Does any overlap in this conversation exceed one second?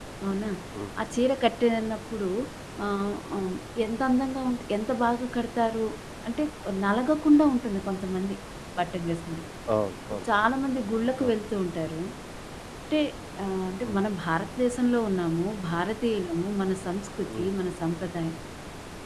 No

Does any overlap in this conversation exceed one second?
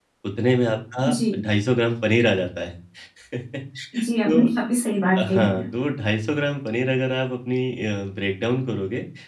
No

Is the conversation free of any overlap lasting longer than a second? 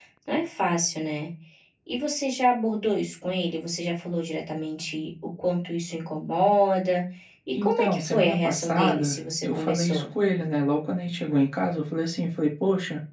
No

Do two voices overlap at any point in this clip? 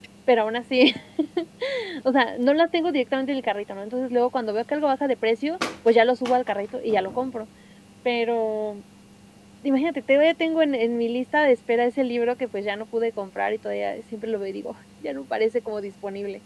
No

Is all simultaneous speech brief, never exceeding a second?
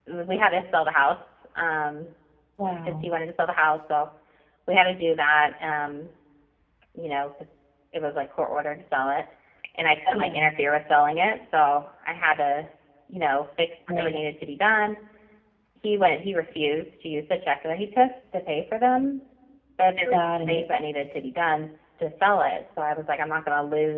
Yes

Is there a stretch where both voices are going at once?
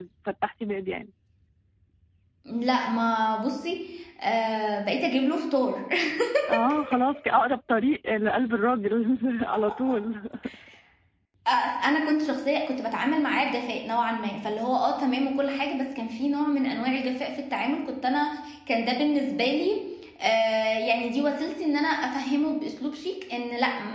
No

